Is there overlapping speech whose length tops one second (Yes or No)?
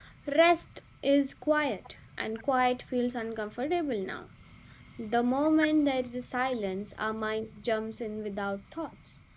No